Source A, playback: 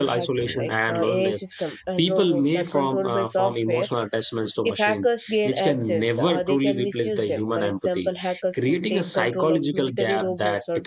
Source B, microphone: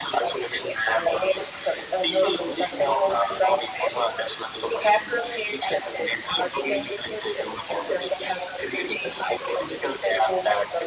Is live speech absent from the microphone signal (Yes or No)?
Yes